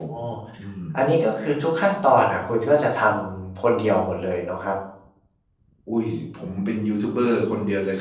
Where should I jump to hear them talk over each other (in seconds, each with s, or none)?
none